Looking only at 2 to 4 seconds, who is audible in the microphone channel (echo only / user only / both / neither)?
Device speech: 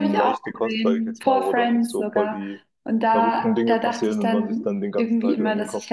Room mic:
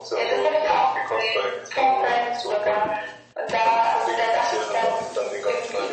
echo only